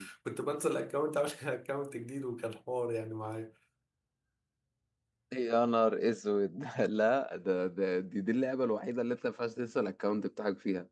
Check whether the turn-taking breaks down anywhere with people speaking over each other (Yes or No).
No